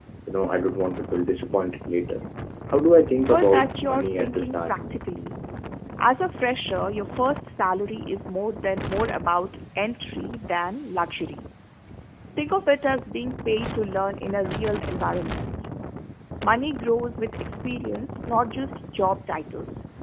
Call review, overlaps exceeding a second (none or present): present